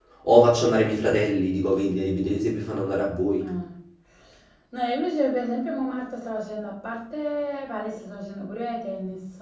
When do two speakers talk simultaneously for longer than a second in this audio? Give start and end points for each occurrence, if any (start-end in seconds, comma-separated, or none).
none